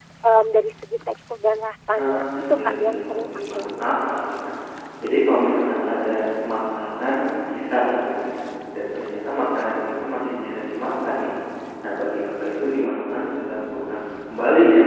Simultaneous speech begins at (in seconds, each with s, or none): 1.9 s